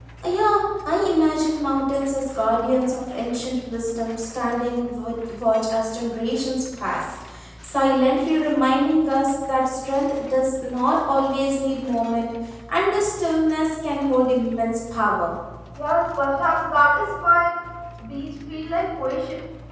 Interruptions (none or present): none